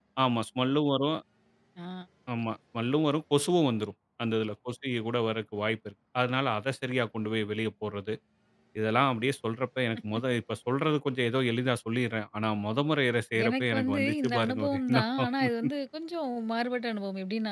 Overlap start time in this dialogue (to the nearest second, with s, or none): 13 s